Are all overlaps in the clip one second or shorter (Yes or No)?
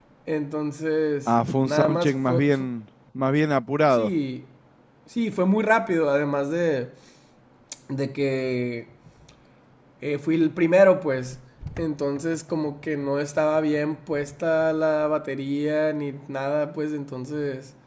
No